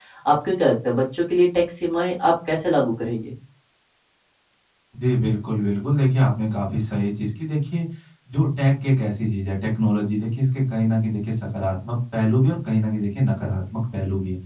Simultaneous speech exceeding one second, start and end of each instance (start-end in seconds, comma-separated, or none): none